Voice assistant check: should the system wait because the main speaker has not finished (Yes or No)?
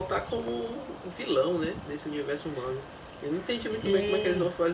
Yes